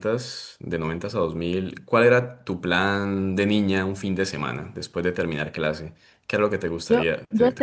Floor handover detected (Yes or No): Yes